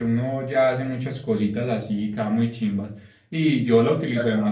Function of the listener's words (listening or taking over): listening